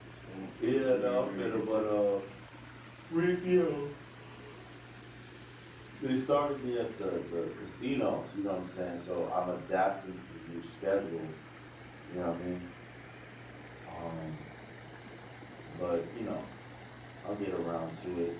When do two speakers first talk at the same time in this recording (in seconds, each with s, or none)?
0.7 s